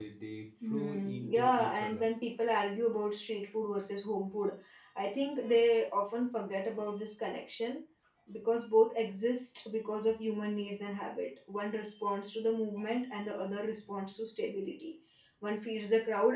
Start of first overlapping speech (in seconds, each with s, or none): 0.7 s